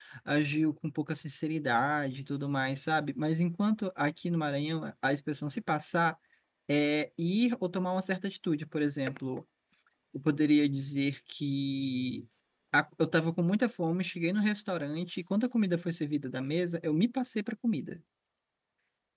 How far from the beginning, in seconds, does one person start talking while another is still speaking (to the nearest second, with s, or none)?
none